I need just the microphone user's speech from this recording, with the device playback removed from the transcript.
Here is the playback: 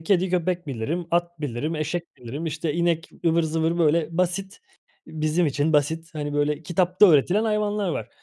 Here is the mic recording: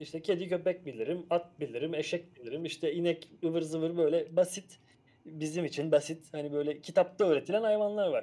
none

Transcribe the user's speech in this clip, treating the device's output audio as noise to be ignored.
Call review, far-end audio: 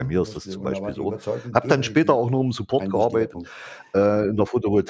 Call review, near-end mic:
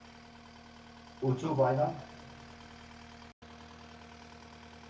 Und so weiter.

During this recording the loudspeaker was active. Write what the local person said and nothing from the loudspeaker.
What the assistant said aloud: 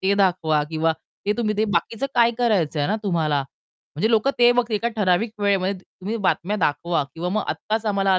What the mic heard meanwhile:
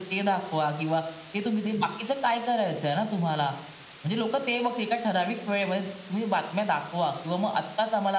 none

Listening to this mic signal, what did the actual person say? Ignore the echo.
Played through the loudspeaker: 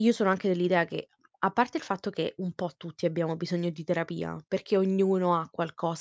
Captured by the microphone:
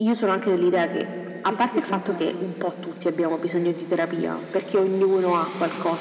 Sì, sì, sì, concordo.

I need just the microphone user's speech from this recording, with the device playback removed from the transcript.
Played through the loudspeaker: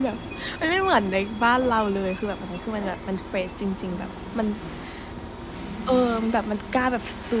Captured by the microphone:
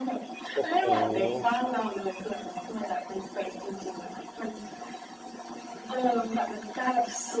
โอ้โฮ!

